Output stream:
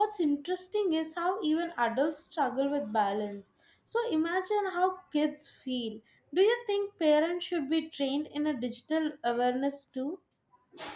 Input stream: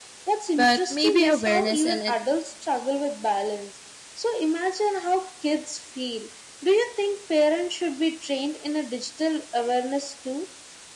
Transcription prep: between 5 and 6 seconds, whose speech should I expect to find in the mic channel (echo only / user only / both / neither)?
echo only